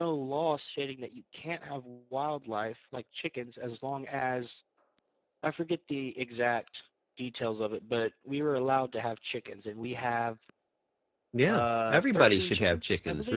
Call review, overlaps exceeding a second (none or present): present